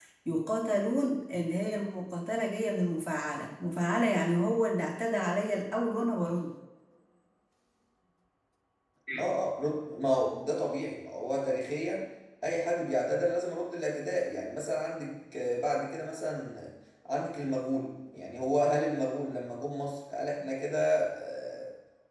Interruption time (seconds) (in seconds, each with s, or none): none